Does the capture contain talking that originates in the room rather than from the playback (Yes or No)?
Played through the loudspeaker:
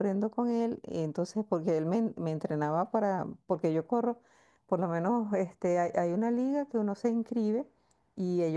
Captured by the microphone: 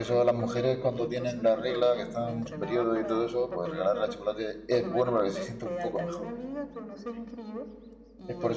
Yes